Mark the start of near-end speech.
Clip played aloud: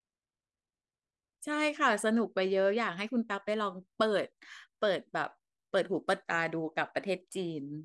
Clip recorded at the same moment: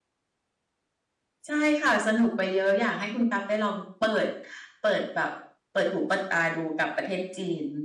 none

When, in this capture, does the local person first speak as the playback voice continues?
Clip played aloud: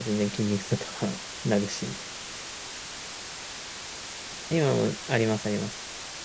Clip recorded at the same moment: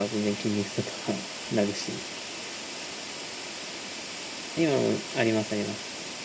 none

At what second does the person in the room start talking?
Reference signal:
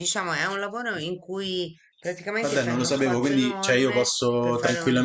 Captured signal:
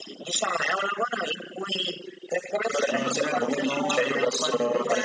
2.8 s

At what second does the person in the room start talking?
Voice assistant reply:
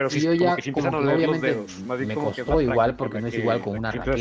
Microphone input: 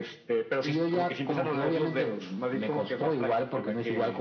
none

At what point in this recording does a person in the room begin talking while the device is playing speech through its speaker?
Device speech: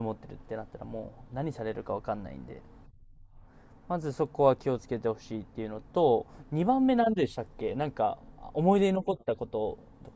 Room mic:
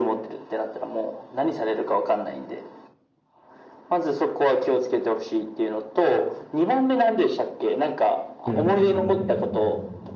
8.4 s

